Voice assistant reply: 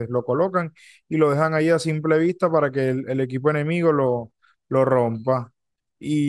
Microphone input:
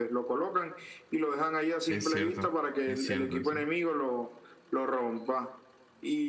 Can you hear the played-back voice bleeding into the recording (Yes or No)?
Yes